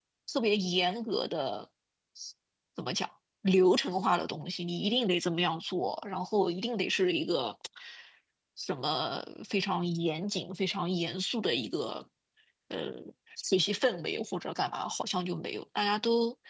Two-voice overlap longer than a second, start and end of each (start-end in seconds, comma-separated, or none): none